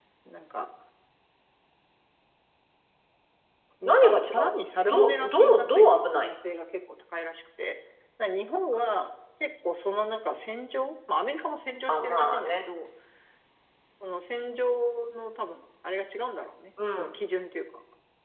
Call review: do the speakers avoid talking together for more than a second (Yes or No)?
No